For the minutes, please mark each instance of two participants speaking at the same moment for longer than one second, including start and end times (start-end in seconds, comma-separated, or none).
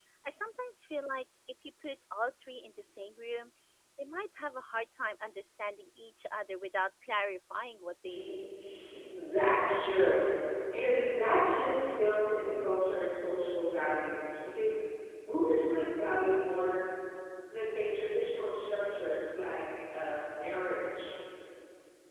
none